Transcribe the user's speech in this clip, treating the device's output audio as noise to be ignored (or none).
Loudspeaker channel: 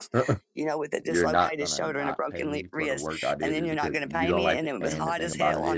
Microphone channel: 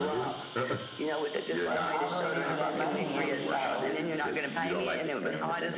and I really needed that money, and so